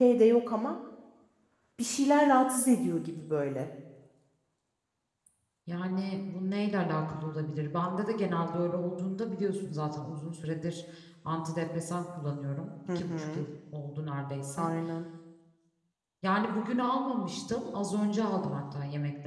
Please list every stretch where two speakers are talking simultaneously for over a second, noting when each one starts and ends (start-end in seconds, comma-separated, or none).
none